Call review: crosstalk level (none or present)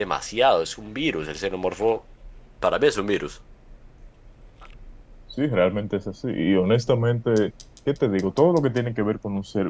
none